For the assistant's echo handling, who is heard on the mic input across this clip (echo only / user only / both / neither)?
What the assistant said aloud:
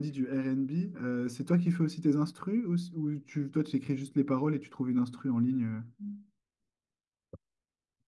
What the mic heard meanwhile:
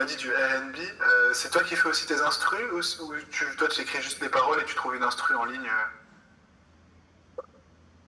echo only